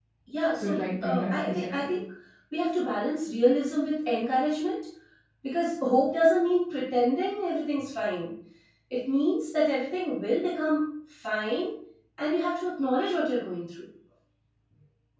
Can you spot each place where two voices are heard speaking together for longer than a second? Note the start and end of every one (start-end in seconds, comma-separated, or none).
0.6-2.0